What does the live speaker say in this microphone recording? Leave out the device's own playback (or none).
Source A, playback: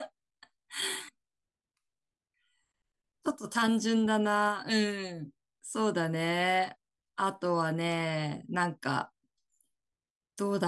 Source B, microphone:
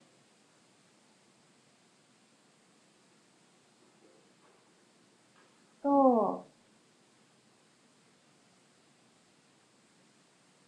そう。